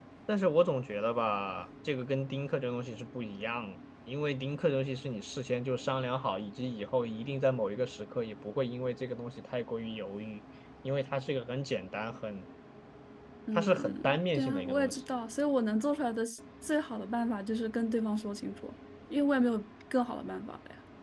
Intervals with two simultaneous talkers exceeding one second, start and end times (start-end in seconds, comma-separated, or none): 13.6-14.9